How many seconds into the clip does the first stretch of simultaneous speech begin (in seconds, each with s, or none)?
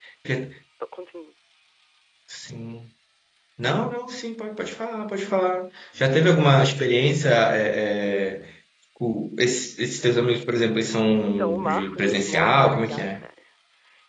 11.2 s